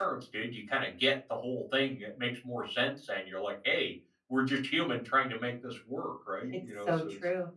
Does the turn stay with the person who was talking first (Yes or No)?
No